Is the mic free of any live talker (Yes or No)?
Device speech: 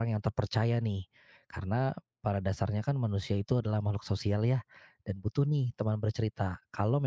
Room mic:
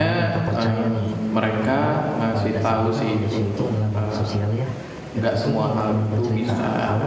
No